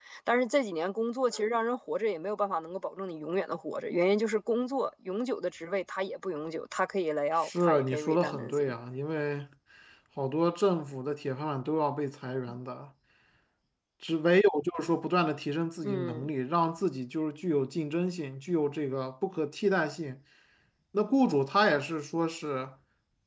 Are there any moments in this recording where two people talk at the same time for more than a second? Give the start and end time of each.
7.4-8.7

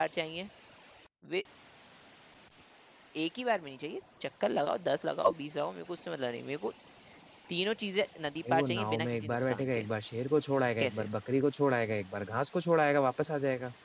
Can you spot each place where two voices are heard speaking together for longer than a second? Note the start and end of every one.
8.5-9.8

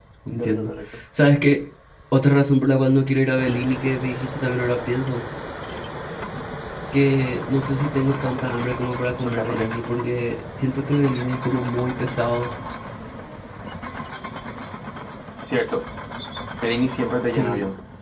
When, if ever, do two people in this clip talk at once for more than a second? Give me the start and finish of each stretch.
none

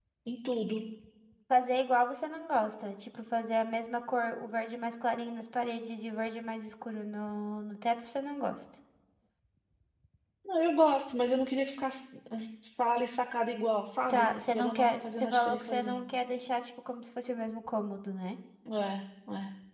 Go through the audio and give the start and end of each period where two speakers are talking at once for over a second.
14.1-16.1

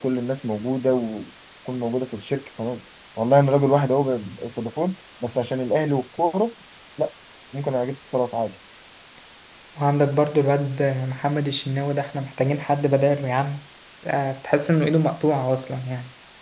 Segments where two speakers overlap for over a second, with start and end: none

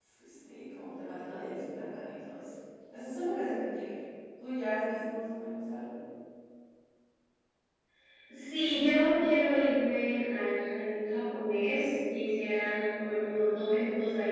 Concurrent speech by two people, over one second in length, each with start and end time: none

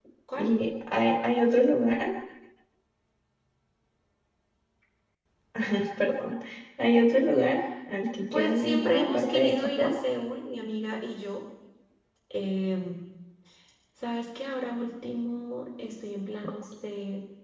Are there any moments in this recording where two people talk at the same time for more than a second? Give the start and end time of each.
8.3-9.9

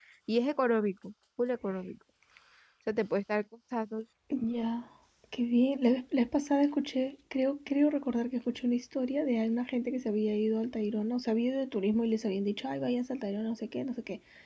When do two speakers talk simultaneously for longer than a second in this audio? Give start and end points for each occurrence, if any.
none

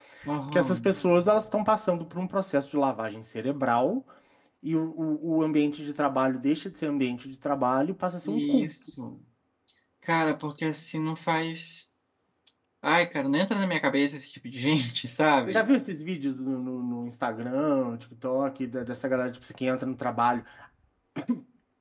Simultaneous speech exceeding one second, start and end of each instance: none

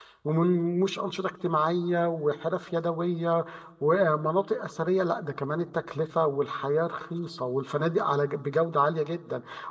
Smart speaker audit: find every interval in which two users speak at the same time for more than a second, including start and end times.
none

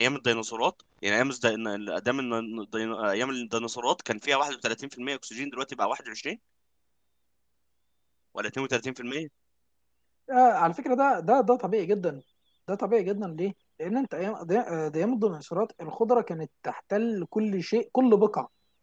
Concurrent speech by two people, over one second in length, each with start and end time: none

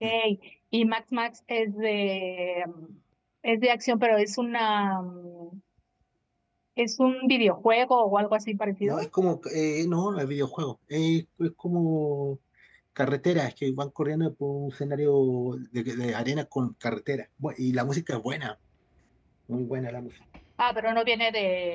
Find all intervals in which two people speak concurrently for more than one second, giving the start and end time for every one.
none

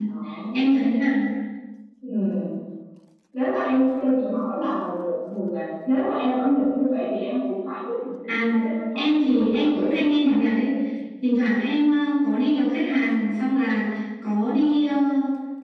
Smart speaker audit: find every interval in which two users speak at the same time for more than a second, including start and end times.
8.9-10.3

